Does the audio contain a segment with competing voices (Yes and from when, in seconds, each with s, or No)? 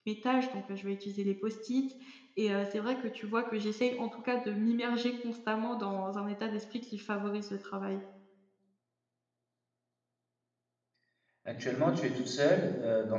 No